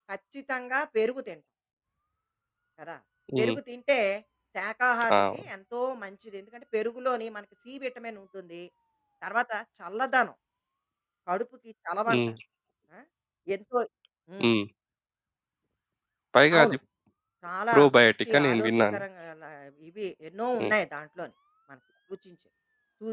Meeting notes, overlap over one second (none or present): present